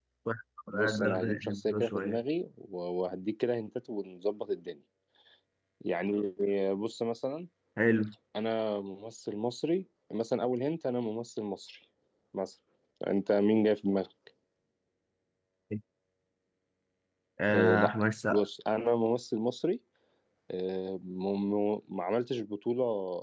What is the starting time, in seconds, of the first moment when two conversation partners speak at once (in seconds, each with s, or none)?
0.7 s